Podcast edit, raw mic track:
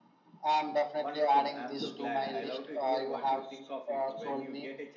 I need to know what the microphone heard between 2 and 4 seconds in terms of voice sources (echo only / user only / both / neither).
both